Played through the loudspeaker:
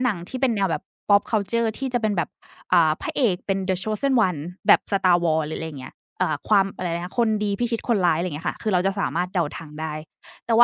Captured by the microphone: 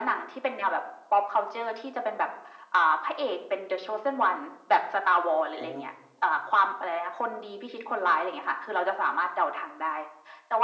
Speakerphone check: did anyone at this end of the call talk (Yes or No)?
Yes